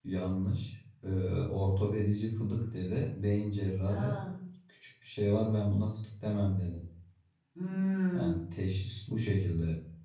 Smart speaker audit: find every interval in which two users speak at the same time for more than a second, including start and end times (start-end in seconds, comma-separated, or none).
none